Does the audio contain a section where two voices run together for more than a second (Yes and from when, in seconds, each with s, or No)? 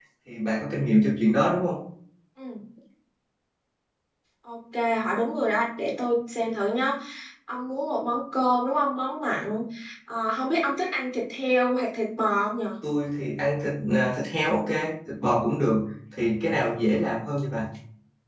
No